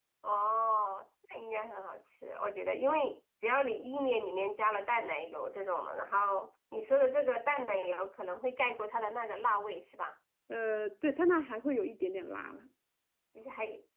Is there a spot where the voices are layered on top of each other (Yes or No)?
No